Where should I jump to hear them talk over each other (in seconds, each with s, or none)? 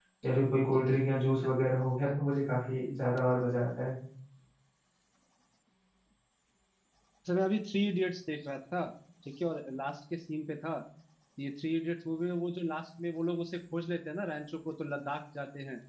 none